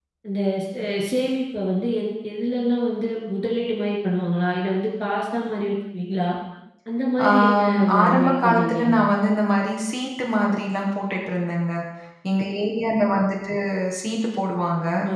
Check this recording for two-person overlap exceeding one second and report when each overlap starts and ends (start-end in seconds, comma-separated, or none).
7.3-8.8